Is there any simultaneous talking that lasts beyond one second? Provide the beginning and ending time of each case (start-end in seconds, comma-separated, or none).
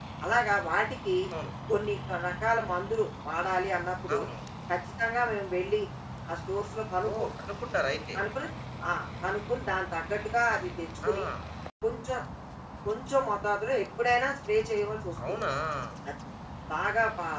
none